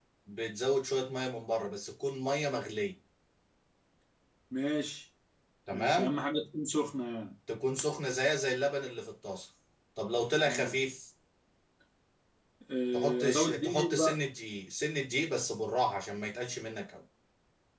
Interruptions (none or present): present